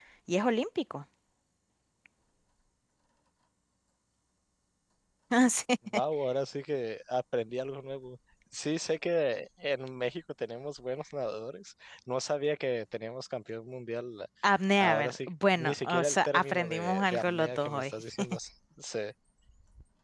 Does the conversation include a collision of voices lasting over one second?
Yes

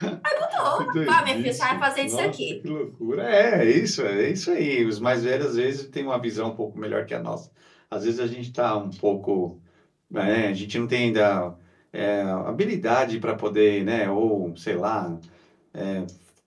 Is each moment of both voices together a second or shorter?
No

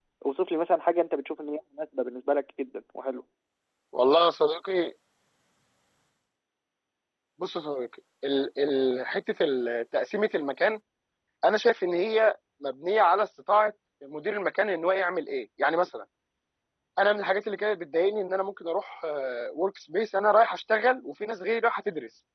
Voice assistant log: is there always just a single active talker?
Yes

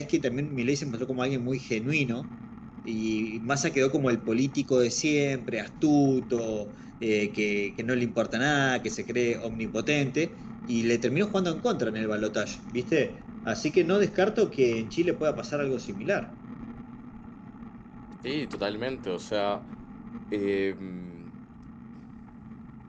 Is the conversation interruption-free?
Yes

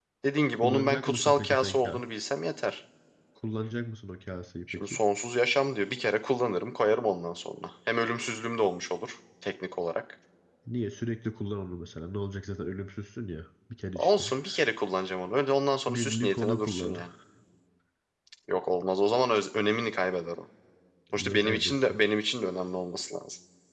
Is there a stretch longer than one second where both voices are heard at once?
Yes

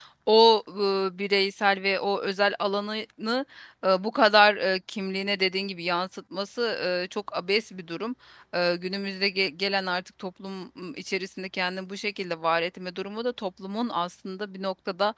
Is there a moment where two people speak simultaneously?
No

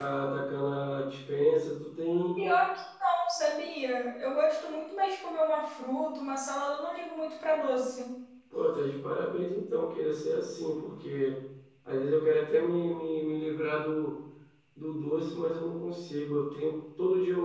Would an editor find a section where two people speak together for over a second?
No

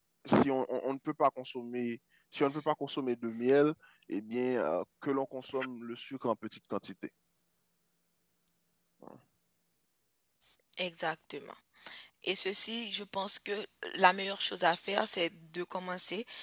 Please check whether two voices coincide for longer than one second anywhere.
No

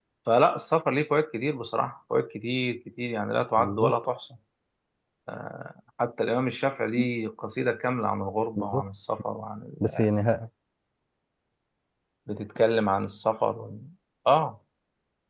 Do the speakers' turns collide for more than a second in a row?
No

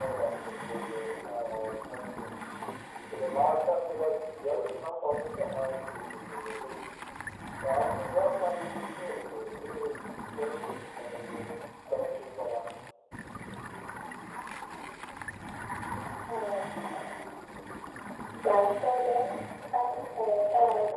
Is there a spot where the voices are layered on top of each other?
No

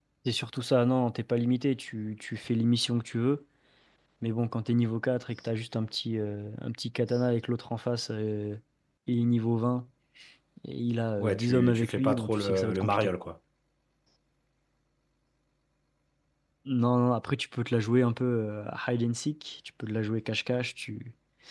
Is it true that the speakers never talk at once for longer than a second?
No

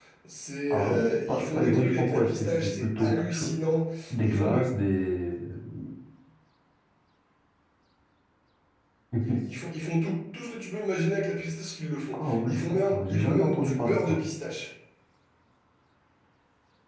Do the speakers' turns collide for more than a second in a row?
Yes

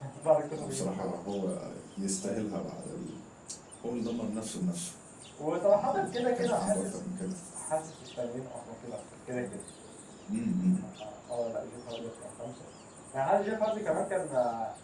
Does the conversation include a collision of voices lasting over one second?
Yes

